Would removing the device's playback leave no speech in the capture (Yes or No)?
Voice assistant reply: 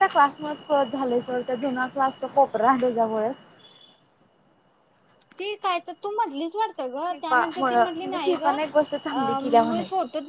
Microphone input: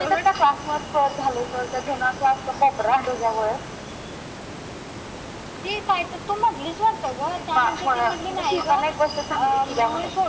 Yes